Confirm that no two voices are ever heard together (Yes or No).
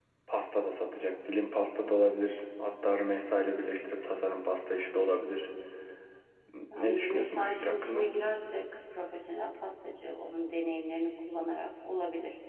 No